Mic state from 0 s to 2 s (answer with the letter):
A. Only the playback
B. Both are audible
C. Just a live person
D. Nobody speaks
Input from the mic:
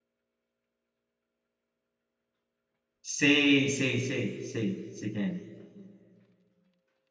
D